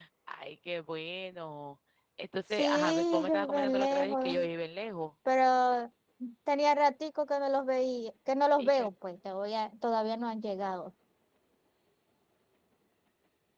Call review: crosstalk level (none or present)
present